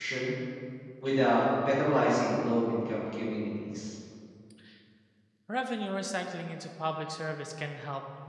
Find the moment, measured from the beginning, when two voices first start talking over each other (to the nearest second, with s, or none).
none